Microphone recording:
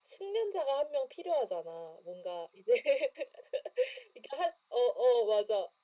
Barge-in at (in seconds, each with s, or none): none